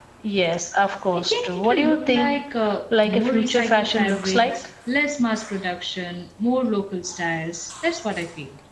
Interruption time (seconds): 1.1 s

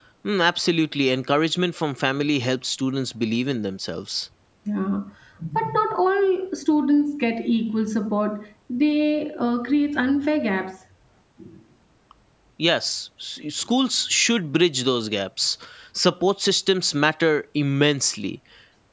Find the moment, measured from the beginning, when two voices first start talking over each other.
none

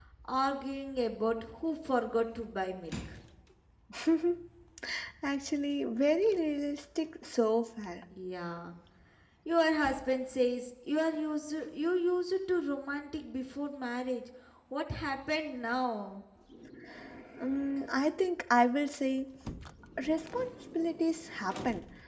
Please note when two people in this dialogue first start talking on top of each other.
none

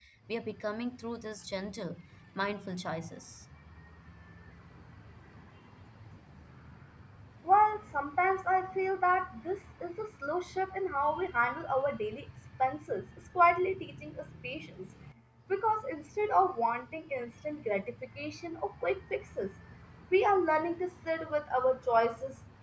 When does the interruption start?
none

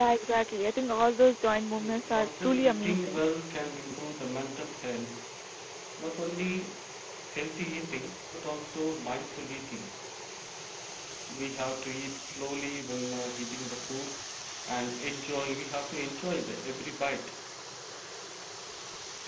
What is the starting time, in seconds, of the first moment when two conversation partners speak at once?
1.8 s

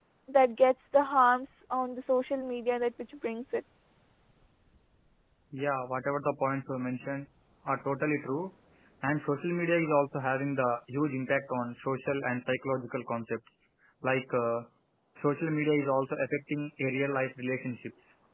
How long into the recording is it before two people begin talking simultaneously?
none

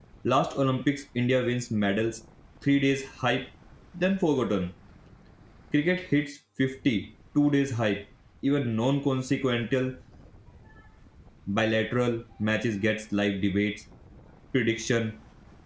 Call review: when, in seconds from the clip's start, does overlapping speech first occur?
none

